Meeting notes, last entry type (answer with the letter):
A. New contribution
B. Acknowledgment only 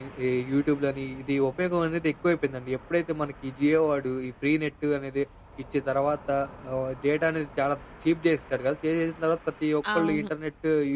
B